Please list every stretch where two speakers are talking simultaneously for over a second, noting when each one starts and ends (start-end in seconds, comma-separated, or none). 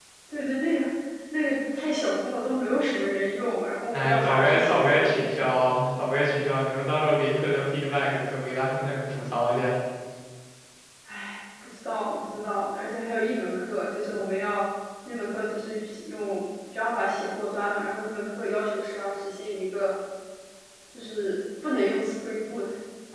3.9-5.3